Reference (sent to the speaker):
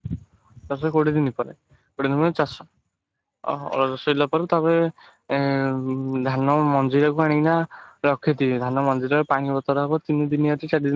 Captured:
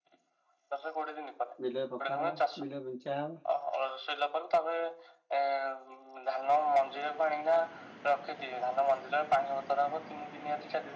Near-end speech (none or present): present